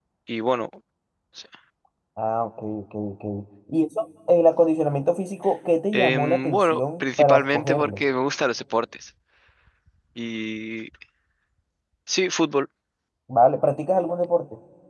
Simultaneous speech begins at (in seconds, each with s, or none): 5.9 s